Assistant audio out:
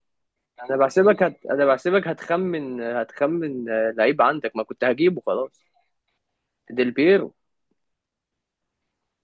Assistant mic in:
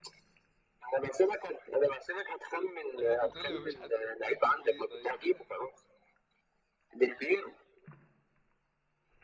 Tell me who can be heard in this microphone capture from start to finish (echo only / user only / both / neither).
both